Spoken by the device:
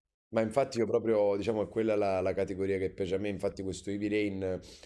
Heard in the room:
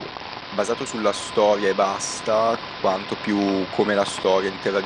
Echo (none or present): none